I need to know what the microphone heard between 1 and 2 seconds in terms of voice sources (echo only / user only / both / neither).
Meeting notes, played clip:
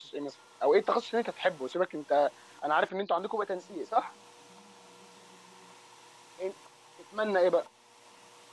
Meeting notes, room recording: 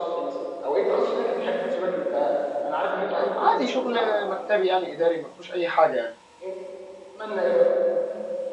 echo only